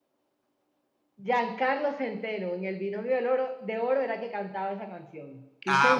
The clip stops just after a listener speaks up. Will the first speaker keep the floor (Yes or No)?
No